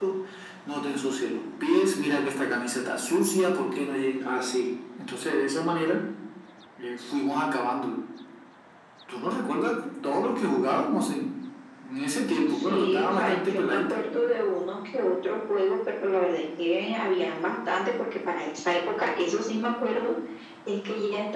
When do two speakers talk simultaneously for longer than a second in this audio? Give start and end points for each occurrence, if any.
12.5-14.1

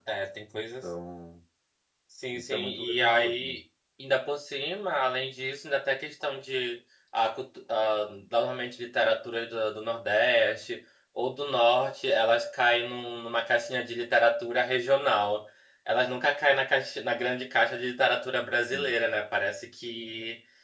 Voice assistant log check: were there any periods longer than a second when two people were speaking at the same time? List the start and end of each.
2.3-3.6

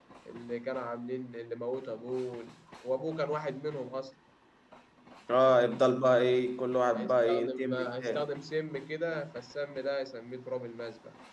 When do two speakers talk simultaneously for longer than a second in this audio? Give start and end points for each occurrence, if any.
6.9-8.2

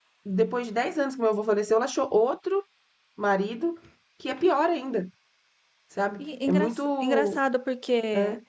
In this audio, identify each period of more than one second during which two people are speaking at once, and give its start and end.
6.2-7.4

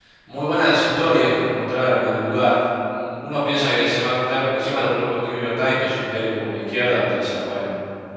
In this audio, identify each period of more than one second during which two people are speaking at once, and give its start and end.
none

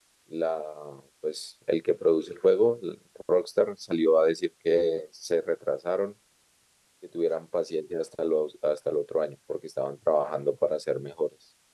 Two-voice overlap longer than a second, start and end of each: none

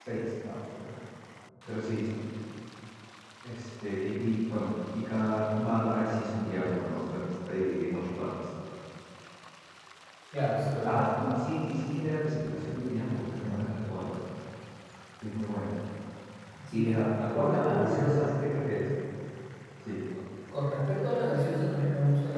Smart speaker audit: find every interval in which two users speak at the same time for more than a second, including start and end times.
16.7-18.3

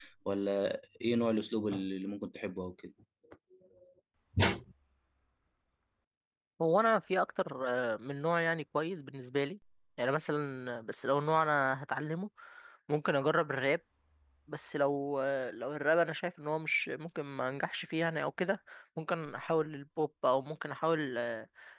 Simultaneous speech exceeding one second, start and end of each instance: none

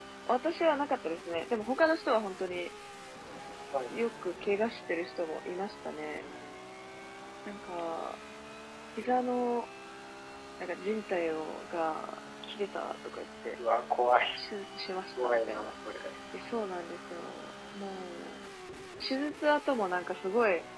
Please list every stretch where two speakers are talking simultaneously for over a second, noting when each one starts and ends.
none

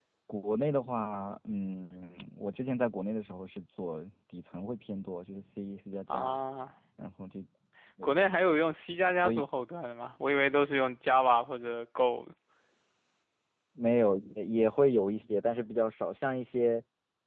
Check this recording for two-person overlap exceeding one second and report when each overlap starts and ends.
none

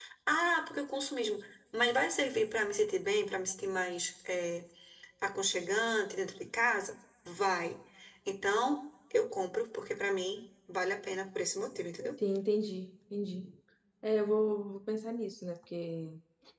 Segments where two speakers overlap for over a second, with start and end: none

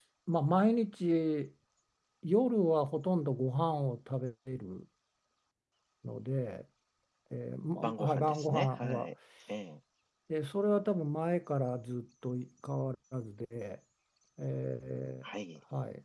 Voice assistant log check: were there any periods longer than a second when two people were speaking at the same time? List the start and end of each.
7.8-9.1

